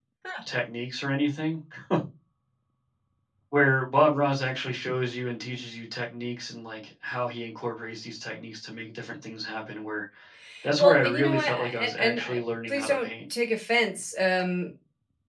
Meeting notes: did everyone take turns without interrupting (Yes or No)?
No